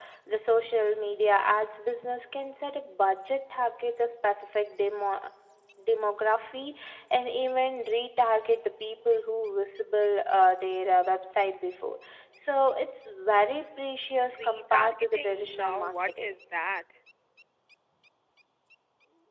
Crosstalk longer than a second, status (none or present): present